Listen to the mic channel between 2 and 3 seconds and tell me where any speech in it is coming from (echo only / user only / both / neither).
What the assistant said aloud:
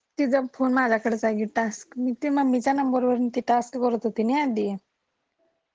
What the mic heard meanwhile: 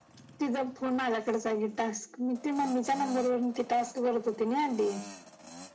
echo only